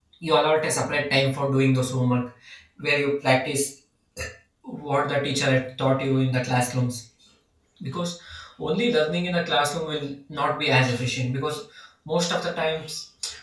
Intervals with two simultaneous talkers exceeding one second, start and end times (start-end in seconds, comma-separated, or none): none